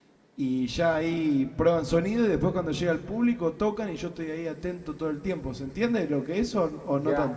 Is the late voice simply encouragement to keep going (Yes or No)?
No